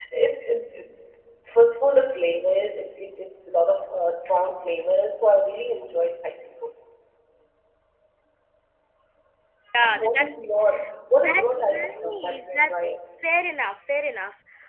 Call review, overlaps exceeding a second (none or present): present